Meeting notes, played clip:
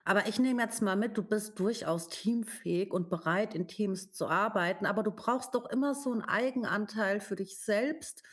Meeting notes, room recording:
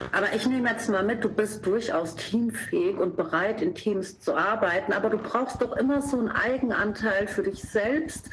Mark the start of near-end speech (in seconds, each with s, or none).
none